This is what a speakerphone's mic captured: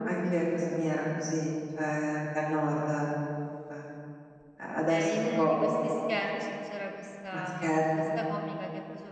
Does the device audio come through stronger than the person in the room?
Yes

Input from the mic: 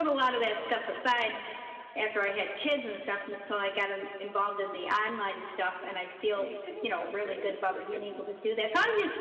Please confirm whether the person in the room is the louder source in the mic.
No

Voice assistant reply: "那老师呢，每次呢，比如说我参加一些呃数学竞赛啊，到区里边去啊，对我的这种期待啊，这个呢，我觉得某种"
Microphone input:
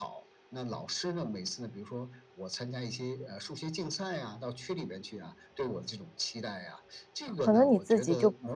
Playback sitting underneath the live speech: Yes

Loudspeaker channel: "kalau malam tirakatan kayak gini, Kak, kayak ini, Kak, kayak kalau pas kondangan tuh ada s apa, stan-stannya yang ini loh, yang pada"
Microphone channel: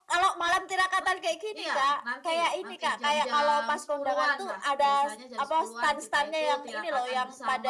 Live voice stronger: No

